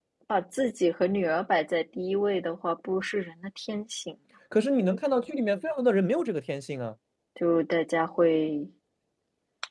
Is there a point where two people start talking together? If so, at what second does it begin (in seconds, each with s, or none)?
none